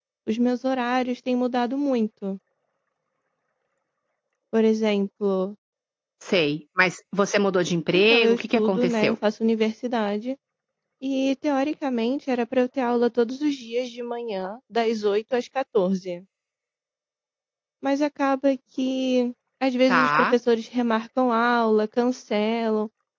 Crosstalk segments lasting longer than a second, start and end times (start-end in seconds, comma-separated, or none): 7.9-9.2